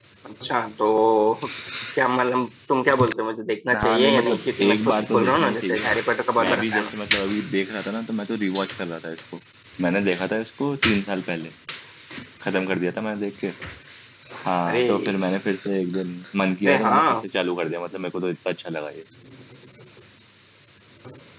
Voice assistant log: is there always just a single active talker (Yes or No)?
No